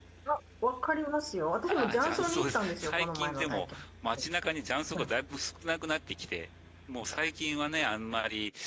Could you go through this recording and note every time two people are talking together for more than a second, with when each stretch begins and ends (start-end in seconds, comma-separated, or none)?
1.7-3.8